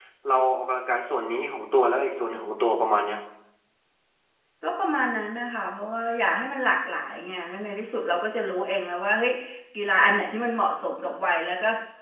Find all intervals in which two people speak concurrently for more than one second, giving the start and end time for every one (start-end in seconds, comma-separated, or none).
none